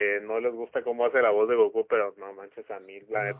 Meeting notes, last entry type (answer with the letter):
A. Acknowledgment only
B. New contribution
A